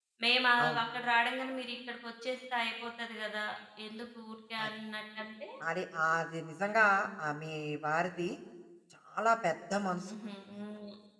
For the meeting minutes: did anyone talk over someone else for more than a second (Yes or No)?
No